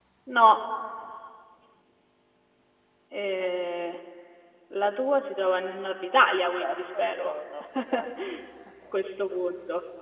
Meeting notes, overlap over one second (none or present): present